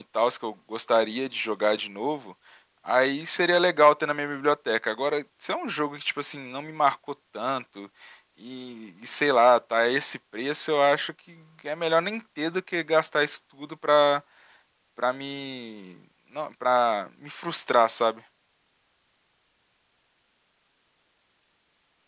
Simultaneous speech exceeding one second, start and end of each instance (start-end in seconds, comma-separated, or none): none